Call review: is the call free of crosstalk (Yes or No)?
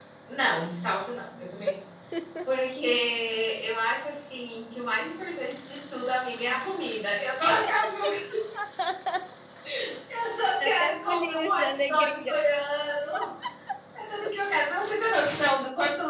No